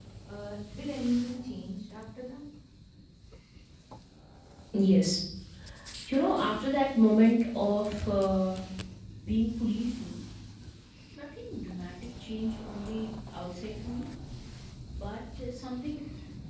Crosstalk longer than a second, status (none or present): none